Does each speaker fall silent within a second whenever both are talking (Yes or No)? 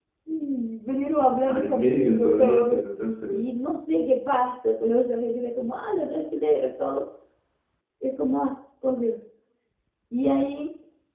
No